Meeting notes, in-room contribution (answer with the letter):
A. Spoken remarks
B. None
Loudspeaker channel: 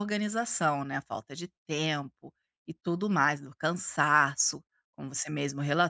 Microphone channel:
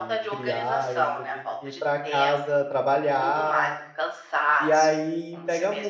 A